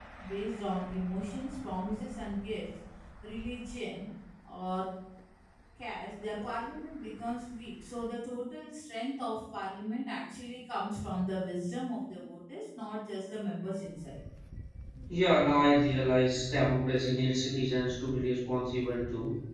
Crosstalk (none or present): none